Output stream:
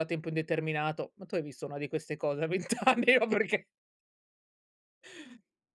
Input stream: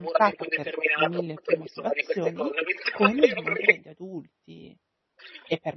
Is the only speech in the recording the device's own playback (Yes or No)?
No